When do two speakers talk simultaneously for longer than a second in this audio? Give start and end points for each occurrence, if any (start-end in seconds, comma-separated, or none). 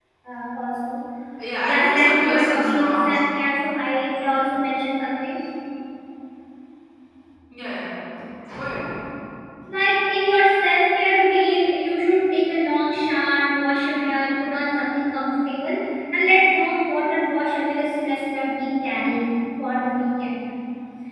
1.6-3.2